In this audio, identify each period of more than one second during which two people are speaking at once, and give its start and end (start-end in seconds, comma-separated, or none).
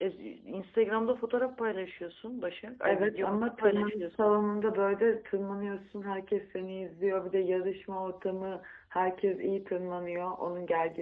2.8-4.1